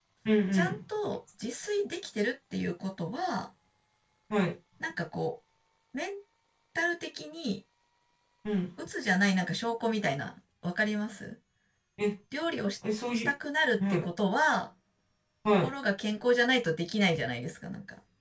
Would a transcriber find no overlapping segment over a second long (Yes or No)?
Yes